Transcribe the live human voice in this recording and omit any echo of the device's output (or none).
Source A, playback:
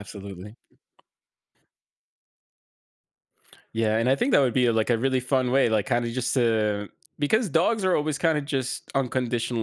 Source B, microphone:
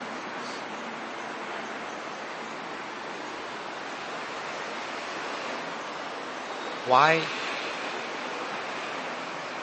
Why